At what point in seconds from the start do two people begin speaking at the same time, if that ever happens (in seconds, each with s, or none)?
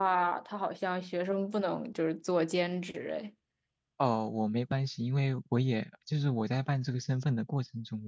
none